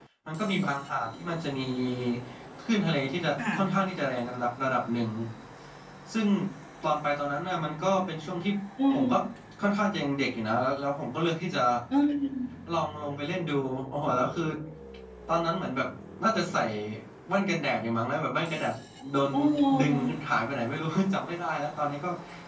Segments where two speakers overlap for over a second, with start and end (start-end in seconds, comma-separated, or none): none